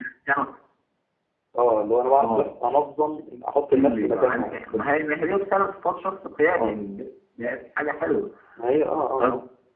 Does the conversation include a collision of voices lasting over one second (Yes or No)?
Yes